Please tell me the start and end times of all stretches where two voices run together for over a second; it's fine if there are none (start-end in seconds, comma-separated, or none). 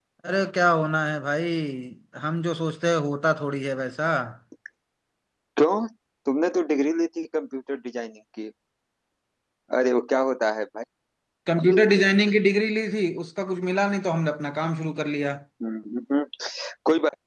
none